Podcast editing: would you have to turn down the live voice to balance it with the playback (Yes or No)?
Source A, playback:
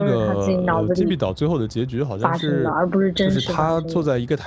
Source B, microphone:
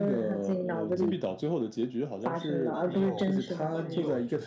No